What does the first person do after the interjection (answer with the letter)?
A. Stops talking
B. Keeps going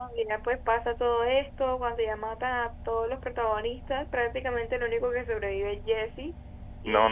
A